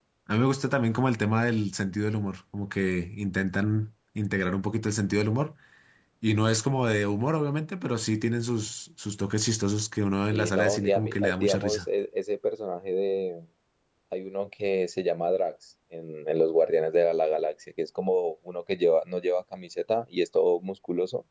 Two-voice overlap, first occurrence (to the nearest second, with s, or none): 10 s